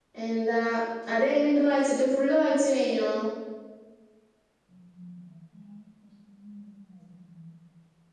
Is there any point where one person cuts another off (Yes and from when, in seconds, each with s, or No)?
No